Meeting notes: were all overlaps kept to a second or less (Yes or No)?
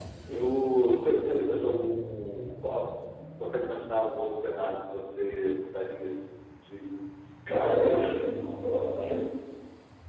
Yes